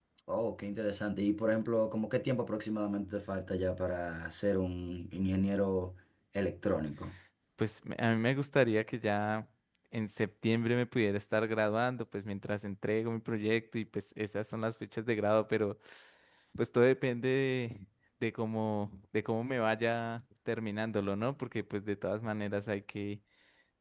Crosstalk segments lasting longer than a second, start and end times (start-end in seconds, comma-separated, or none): none